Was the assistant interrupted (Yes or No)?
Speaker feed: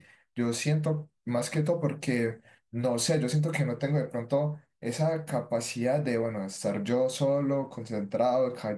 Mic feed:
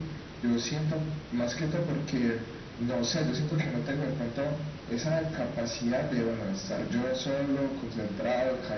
No